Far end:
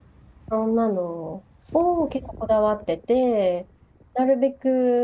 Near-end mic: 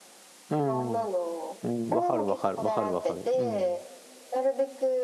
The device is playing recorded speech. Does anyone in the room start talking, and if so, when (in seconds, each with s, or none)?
0.5 s